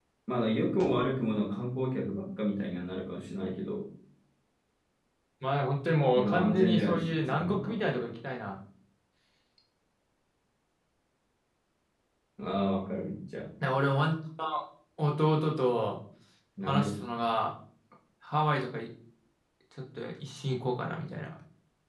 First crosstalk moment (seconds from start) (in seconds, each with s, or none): 6.2 s